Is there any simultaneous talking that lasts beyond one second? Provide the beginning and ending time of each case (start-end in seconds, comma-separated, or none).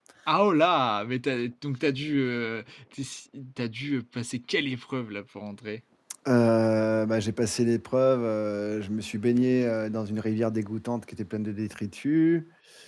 none